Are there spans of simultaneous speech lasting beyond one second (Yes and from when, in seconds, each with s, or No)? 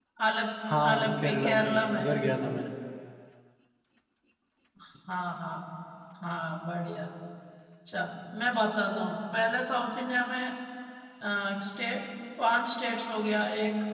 Yes, from 0.9 s